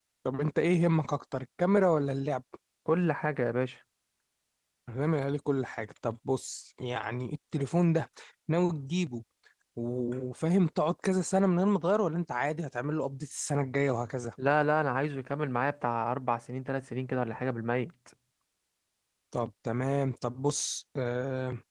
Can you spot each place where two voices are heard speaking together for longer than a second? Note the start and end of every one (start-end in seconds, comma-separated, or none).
none